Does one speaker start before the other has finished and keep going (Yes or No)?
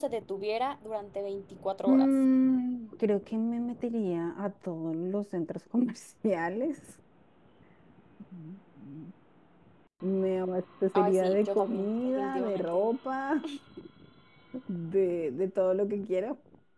Yes